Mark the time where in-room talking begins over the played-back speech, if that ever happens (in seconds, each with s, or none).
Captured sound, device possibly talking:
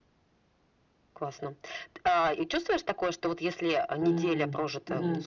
4.0 s